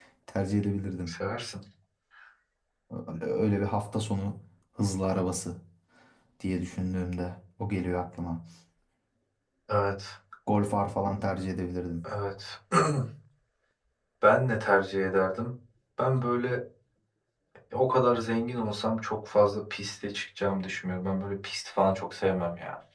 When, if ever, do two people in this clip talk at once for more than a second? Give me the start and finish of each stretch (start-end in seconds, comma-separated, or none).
none